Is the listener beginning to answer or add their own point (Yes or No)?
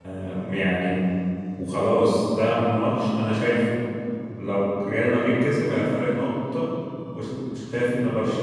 No